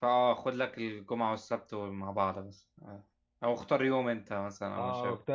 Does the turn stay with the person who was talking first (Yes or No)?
No